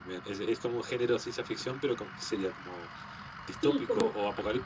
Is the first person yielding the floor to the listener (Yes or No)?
Yes